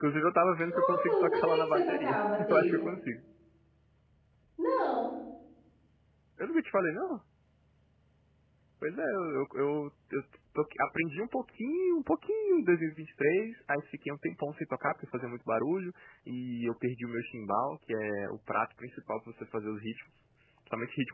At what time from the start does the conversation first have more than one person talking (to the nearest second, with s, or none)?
1 s